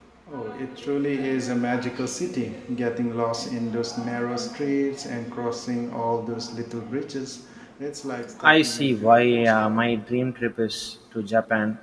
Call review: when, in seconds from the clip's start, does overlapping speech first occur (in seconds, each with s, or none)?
8.4 s